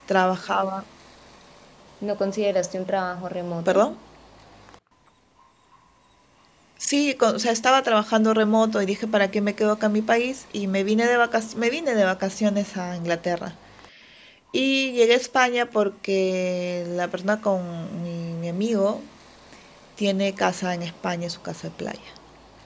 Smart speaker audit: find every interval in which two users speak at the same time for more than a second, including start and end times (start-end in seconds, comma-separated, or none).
none